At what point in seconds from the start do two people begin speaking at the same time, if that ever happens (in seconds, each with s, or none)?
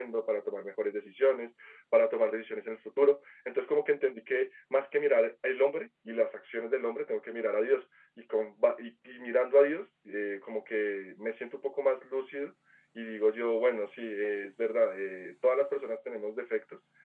none